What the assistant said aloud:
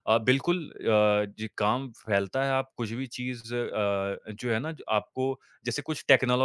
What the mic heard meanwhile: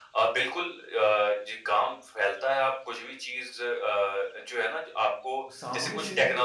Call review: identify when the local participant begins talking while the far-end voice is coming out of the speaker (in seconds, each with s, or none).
5.5 s